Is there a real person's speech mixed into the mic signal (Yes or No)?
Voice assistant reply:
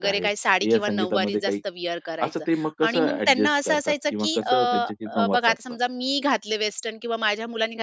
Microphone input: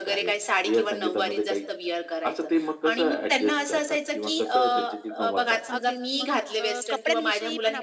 Yes